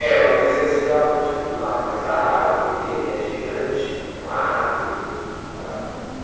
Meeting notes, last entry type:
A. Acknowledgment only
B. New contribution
B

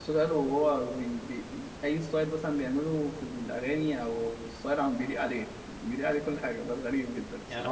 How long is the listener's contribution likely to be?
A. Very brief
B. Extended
B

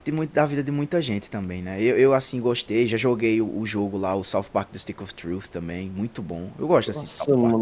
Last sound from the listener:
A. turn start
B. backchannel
A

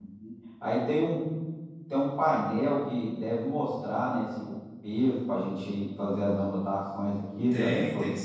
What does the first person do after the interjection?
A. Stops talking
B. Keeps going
A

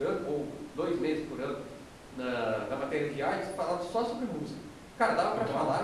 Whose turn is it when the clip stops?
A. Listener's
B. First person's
B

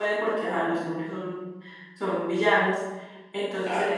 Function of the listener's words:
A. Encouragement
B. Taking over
A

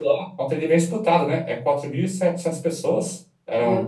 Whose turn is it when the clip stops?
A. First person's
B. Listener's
A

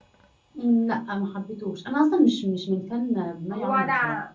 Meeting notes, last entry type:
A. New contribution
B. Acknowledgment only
A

